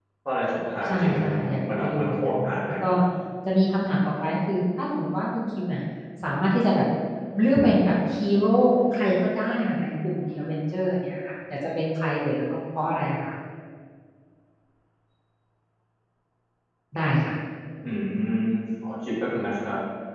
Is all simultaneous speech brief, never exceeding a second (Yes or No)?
No